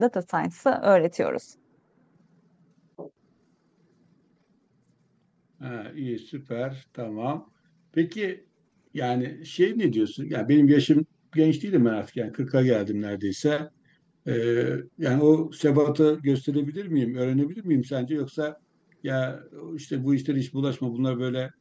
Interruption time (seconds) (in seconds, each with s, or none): none